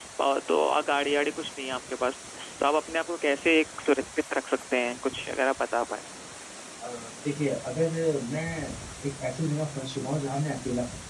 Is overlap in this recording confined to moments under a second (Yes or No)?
Yes